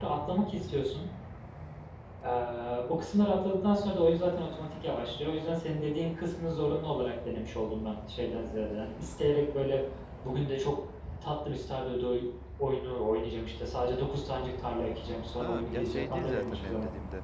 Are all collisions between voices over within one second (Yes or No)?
No